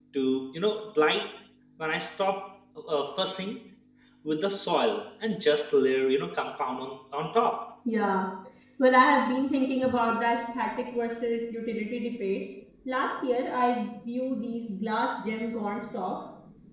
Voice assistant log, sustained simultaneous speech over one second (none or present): none